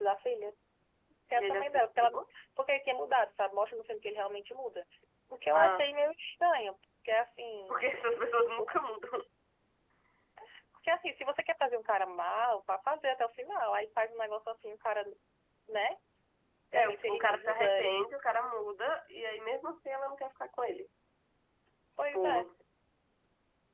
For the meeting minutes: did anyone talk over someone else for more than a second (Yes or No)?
Yes